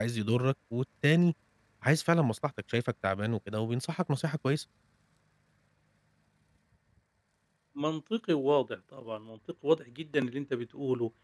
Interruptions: none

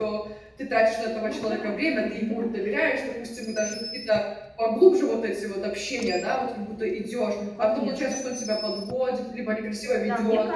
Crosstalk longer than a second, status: present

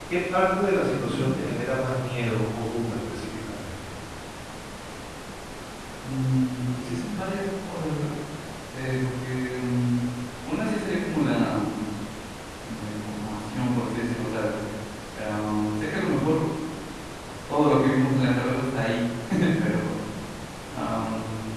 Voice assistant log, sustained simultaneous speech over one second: none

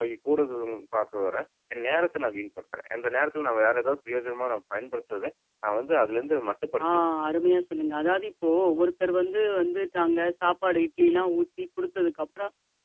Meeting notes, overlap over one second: none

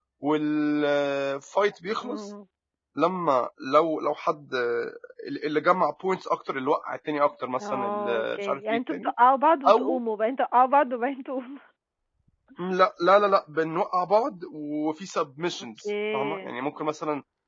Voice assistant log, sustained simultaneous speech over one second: present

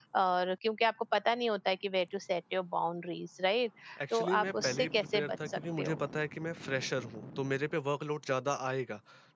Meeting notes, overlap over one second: present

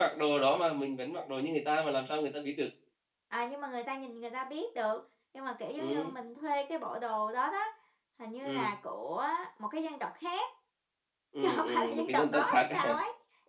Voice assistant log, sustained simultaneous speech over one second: present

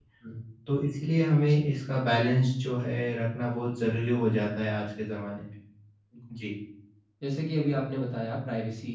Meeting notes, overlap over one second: none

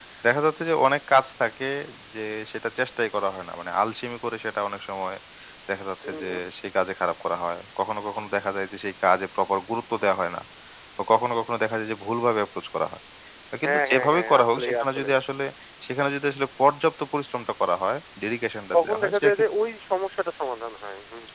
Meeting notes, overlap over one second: present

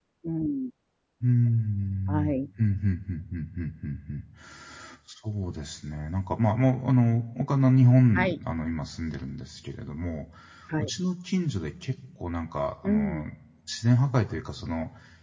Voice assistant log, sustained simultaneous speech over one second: none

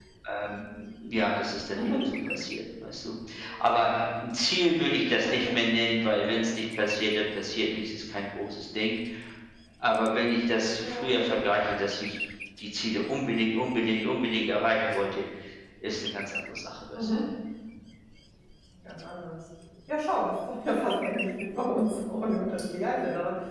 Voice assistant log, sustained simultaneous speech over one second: none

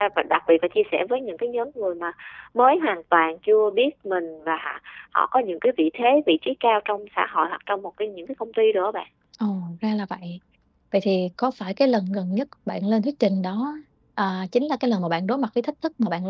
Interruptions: none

